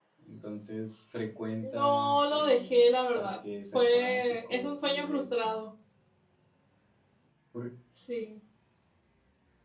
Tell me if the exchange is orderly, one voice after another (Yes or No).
No